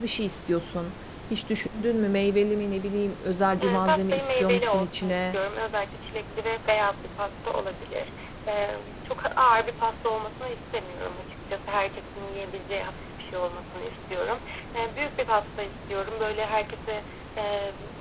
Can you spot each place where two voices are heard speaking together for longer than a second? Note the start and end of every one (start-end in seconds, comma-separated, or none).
3.6-5.4